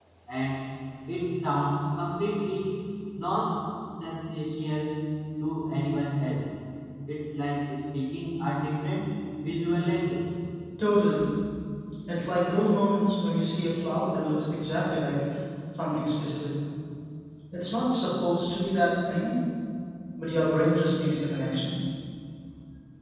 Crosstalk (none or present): none